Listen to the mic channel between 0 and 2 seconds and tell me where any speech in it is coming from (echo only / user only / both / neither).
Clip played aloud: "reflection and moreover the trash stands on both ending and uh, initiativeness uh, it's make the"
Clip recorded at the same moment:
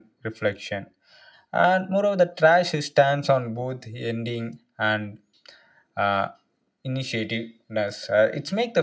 echo only